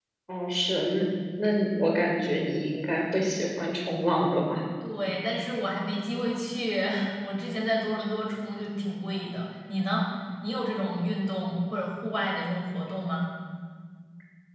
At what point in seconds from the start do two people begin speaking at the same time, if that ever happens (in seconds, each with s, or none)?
none